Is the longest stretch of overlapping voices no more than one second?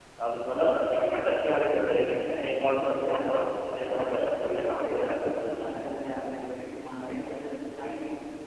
No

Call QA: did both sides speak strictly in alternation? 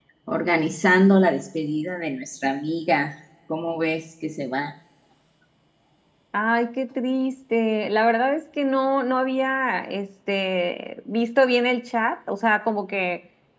Yes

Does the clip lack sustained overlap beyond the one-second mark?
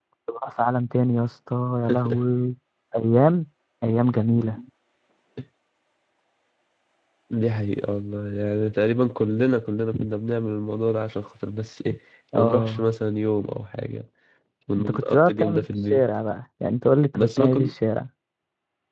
No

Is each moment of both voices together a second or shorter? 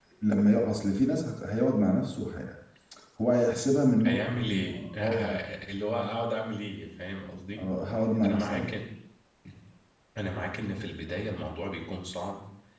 No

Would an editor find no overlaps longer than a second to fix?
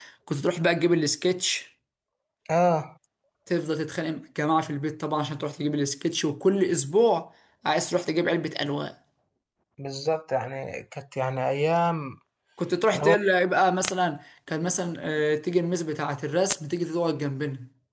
Yes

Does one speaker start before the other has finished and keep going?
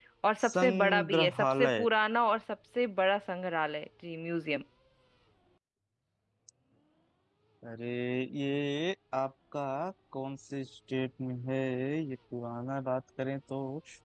Yes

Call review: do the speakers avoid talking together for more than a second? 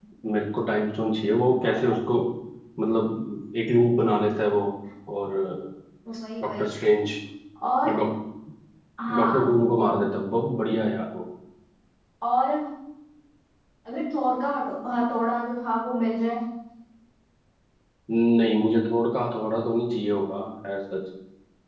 Yes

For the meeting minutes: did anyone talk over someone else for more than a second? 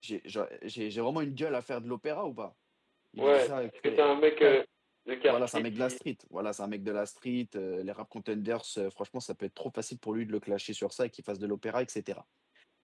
Yes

